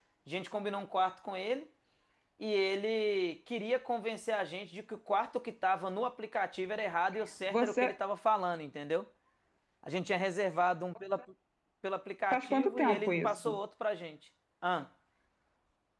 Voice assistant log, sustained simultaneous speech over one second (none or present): present